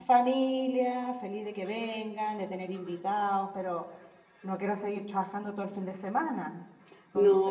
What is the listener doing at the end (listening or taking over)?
taking over